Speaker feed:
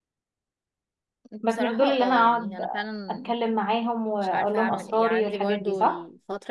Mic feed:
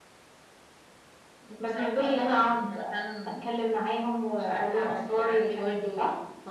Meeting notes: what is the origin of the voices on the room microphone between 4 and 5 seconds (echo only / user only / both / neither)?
echo only